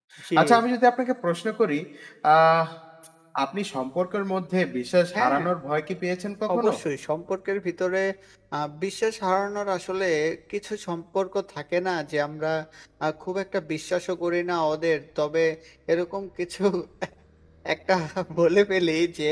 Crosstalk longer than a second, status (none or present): none